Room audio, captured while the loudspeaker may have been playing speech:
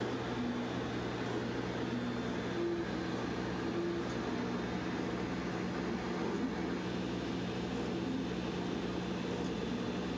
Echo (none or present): none